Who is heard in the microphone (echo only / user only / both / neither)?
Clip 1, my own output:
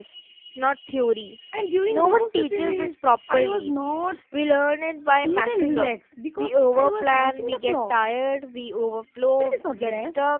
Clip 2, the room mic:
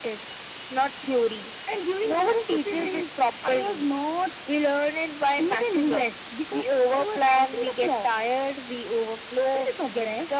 echo only